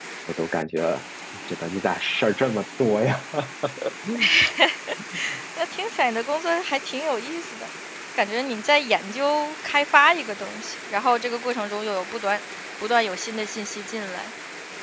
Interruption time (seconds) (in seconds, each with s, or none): none